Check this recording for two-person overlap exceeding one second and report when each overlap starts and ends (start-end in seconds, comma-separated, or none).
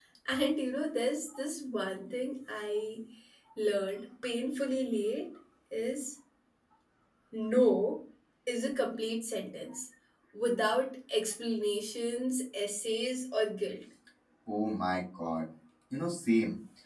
none